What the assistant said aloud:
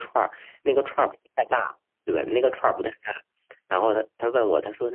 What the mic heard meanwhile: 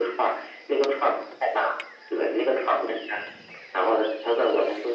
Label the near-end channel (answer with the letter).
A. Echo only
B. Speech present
A